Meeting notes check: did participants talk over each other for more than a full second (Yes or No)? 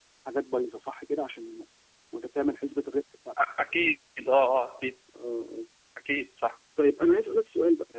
No